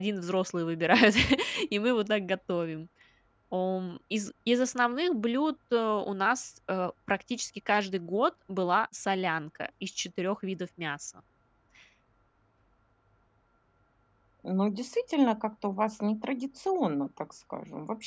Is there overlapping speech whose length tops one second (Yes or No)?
No